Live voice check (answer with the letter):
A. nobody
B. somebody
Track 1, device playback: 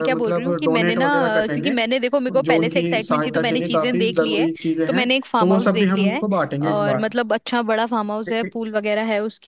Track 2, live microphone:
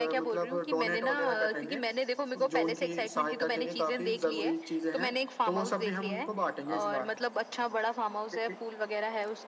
A